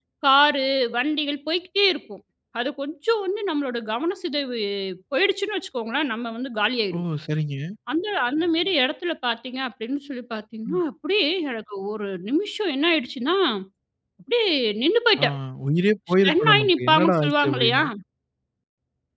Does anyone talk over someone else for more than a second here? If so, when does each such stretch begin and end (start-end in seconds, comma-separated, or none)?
16.2-17.8